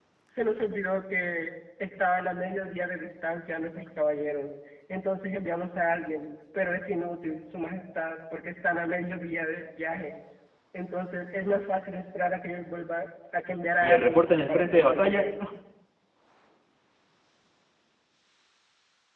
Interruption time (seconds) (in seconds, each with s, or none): 13.8 s